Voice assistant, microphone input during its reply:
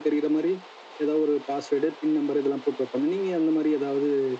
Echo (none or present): present